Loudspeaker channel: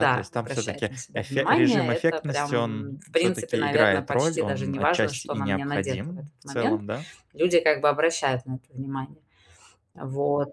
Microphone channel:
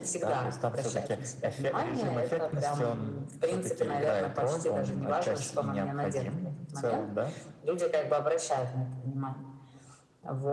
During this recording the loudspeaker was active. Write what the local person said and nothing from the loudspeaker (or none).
none